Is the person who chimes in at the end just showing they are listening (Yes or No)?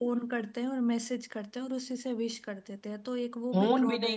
No